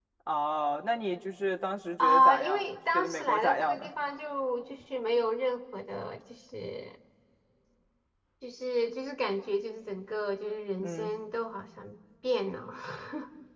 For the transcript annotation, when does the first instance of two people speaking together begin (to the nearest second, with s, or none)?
2 s